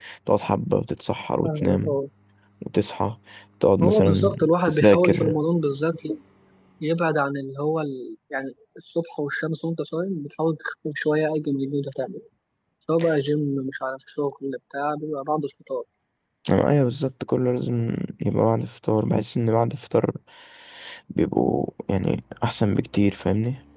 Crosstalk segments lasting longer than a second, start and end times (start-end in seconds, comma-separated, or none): 3.8-5.4